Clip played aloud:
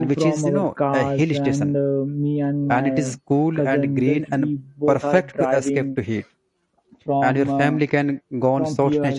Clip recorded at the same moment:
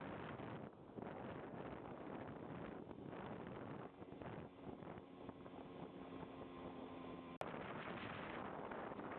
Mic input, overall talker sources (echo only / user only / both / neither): neither